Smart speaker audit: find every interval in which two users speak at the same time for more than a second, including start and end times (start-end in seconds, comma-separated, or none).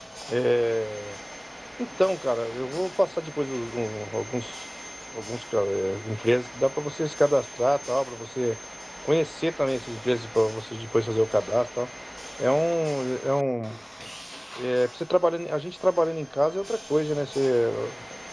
none